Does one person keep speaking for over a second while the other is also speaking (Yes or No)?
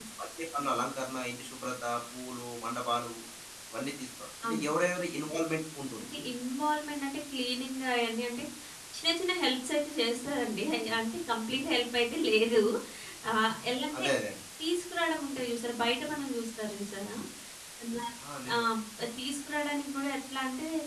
No